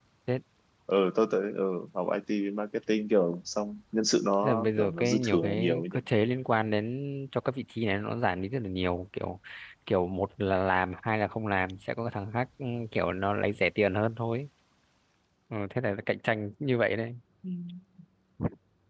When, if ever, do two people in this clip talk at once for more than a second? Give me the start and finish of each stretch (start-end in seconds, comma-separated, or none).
4.4-5.8